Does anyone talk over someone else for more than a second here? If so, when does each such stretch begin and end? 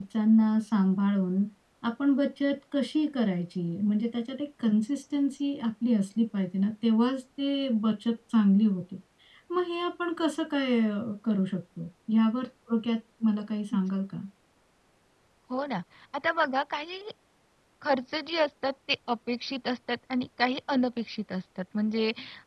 none

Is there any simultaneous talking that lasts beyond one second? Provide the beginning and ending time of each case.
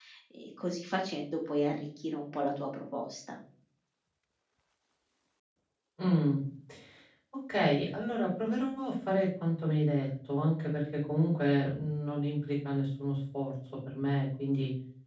none

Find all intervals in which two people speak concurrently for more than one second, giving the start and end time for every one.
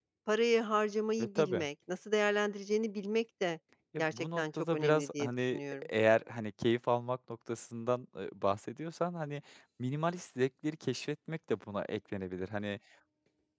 4.0-5.8

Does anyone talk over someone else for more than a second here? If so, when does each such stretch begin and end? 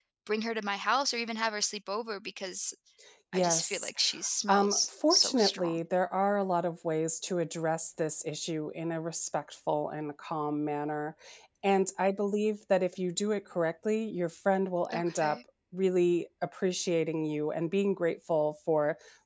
4.5-5.8

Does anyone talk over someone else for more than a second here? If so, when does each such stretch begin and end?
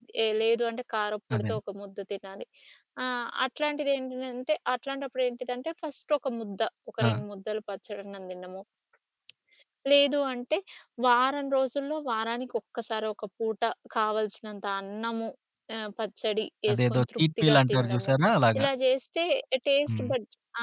16.7-18.1

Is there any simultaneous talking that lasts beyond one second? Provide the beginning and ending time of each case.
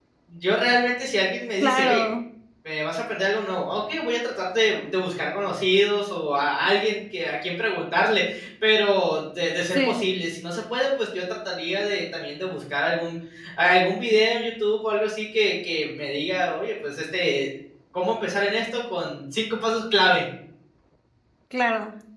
none

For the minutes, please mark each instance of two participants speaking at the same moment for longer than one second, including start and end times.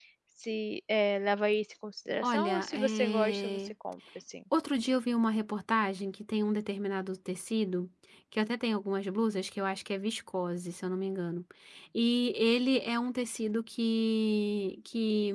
2.2-3.7

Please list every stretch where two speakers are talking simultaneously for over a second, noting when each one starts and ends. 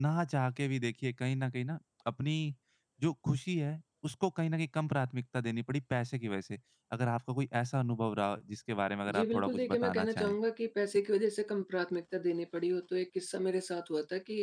9.1-10.3

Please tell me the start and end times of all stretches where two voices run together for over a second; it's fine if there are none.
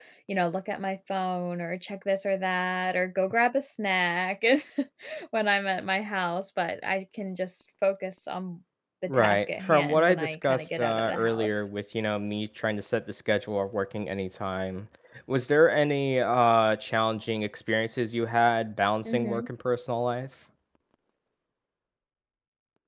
9.1-11.7

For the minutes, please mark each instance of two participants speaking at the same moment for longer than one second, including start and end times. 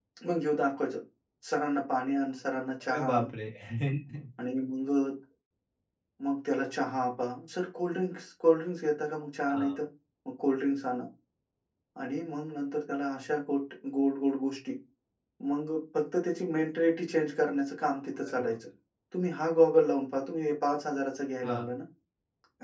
none

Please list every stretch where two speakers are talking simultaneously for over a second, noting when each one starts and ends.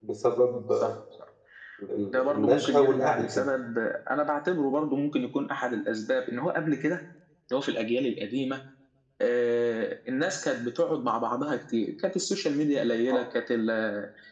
2.1-3.5

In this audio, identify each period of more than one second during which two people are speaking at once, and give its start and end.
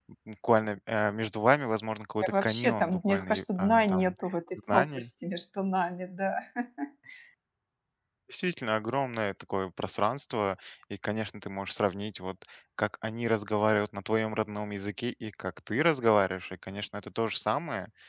2.2-4.0

